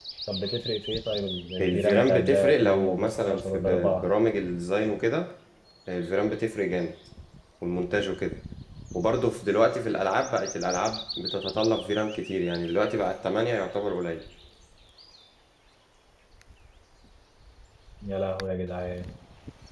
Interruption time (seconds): 1.6 s

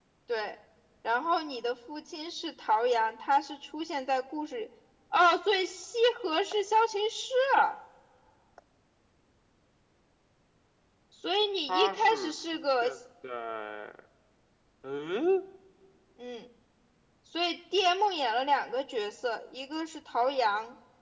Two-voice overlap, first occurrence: 11.7 s

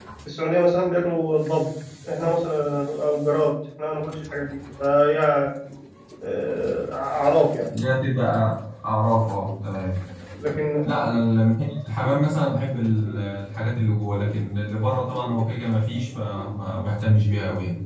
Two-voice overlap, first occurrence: none

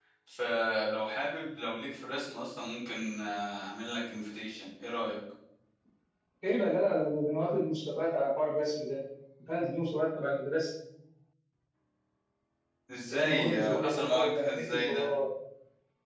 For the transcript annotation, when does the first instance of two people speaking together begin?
13.1 s

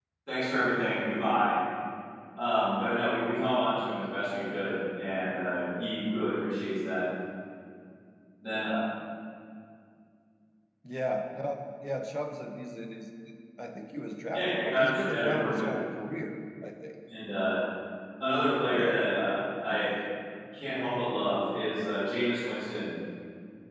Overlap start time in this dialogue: 14.3 s

